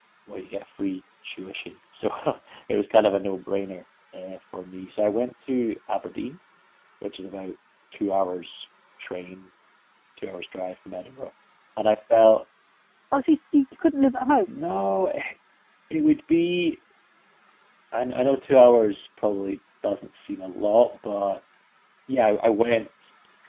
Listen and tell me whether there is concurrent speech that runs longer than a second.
No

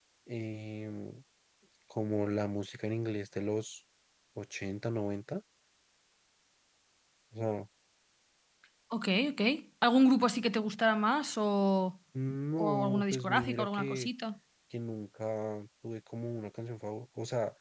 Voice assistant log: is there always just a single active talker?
No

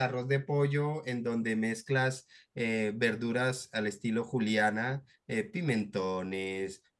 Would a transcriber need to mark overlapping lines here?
No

